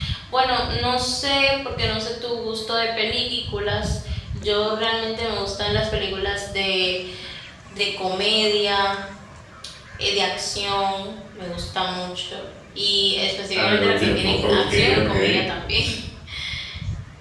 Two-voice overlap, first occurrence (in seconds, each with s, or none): 13.6 s